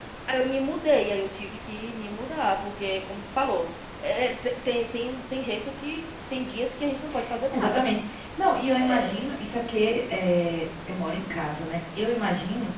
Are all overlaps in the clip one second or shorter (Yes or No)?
Yes